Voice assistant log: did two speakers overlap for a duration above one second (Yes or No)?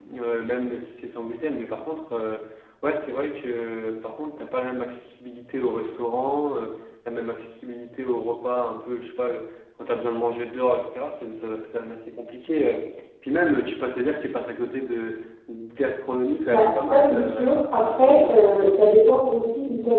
Yes